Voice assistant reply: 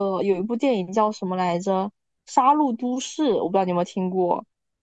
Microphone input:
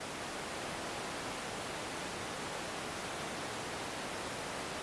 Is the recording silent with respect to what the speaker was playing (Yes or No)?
Yes